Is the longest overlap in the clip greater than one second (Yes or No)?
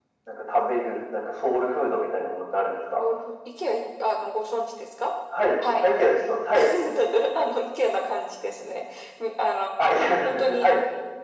No